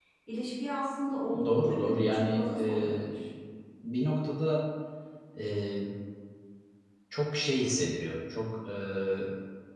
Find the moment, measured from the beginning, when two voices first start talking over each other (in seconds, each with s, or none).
1.3 s